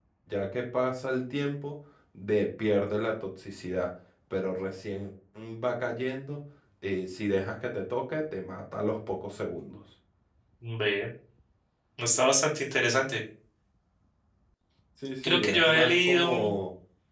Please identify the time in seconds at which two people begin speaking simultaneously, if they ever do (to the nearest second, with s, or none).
15 s